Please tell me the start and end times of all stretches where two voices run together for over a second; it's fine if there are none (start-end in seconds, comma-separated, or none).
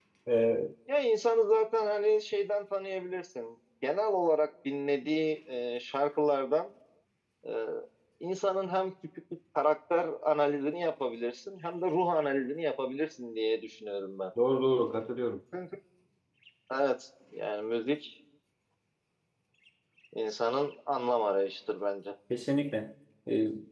none